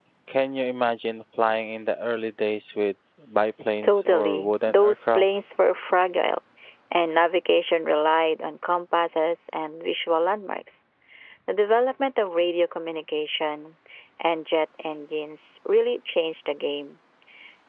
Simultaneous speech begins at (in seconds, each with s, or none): 3.8 s